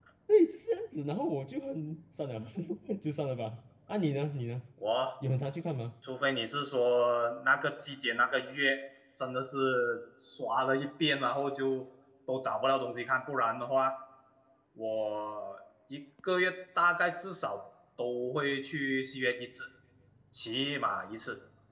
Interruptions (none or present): none